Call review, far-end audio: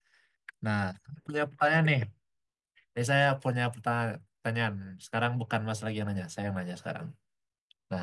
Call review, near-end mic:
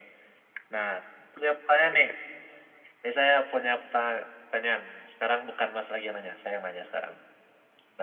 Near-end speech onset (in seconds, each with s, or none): none